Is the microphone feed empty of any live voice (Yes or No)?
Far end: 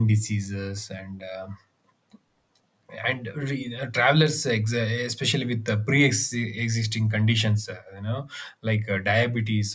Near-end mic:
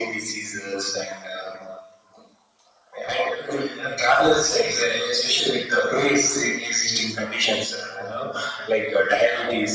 Yes